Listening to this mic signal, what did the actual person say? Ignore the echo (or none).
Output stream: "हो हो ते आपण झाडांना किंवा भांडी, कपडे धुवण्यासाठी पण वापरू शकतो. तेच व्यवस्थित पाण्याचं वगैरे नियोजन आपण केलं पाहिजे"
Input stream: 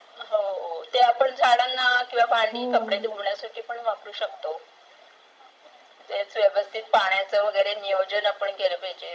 हो.